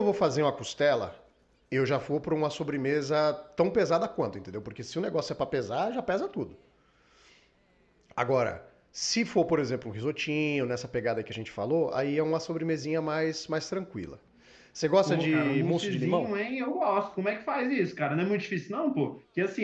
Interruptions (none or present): present